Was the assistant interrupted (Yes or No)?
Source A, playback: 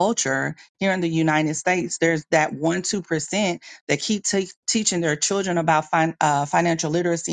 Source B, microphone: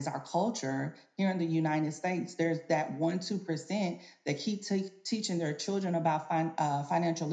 No